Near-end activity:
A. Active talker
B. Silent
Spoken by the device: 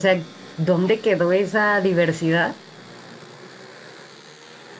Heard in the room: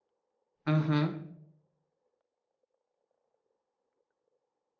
A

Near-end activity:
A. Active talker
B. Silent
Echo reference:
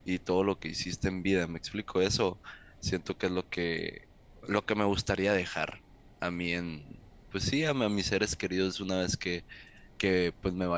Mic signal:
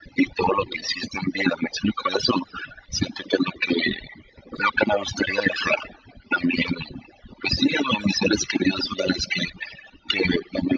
B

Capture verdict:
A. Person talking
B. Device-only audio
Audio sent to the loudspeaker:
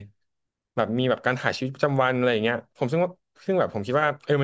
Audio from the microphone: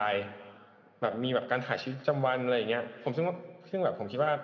B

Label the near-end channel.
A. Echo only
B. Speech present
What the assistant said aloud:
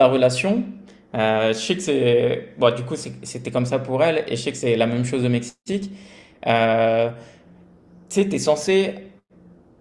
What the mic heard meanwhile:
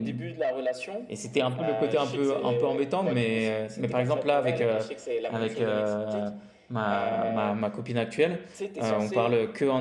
B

